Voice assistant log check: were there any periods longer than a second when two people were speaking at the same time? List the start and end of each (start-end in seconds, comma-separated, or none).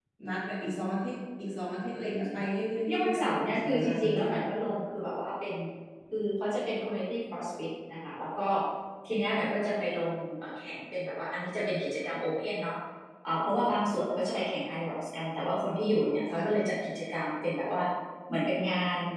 2.9-4.3